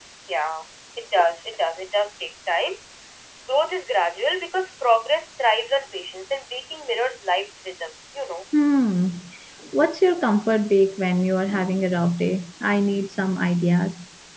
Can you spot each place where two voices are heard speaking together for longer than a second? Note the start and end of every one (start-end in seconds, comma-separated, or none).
none